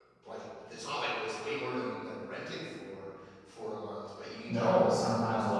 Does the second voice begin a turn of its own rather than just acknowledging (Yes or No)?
Yes